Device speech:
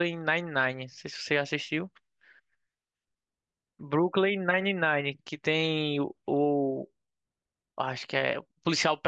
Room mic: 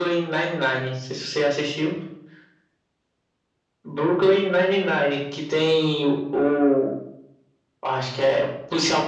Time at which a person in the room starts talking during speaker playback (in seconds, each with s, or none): none